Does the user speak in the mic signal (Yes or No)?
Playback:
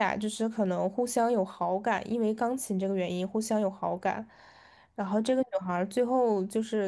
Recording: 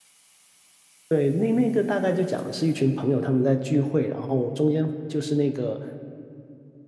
Yes